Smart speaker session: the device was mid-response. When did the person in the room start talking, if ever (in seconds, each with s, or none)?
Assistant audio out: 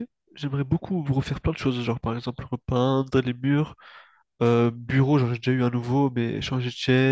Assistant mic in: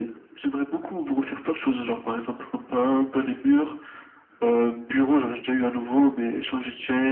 none